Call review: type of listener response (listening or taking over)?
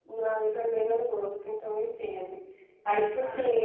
listening